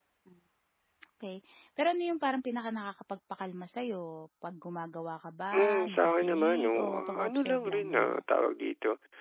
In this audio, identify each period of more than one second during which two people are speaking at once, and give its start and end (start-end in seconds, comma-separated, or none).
5.5-8.2